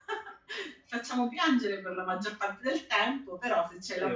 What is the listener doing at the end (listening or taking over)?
taking over